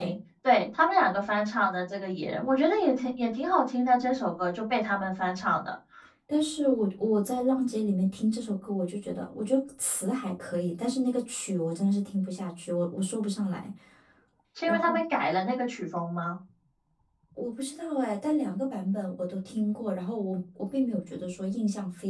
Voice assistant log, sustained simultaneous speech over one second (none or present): none